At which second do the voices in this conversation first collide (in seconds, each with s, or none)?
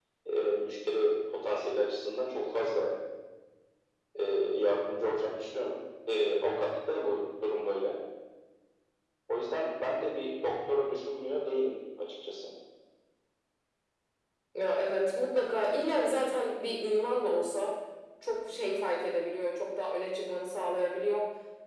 none